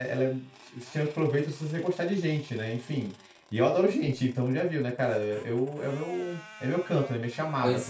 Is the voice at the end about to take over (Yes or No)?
Yes